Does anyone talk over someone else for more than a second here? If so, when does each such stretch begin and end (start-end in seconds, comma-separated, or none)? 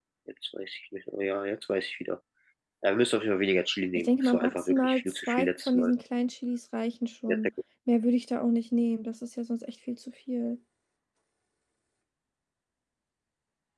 4.0-5.9